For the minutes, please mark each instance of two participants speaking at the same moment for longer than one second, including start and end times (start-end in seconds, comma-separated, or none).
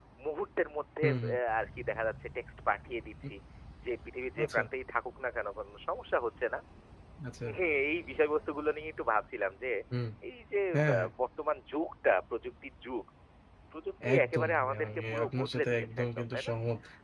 14.2-16.5